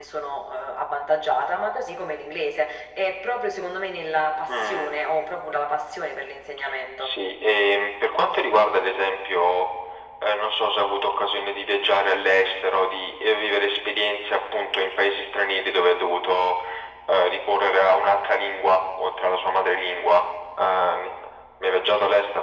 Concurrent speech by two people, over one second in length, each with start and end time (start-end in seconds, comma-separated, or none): none